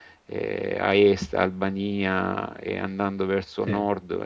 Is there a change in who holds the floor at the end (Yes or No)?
No